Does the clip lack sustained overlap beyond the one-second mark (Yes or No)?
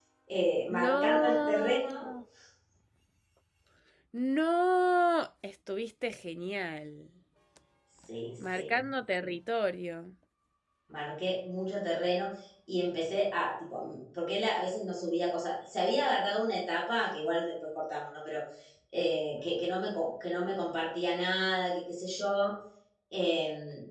No